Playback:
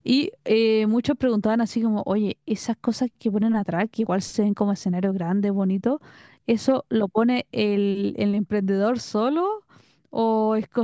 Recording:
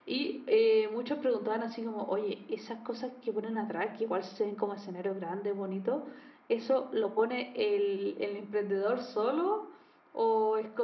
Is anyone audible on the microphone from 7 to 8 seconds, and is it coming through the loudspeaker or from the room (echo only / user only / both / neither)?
echo only